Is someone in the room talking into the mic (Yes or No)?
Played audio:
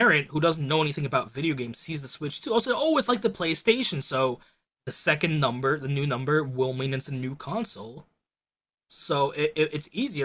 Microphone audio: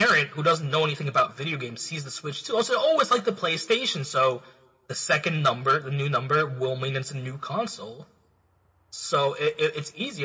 No